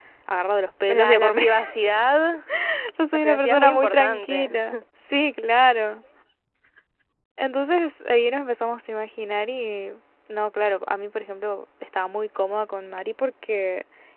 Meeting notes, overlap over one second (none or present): present